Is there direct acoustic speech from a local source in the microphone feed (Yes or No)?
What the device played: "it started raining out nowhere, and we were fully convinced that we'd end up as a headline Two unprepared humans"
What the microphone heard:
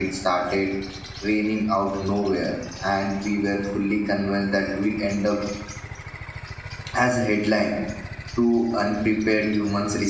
No